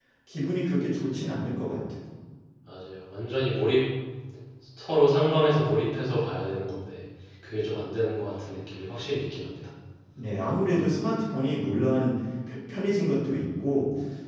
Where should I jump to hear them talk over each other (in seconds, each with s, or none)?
none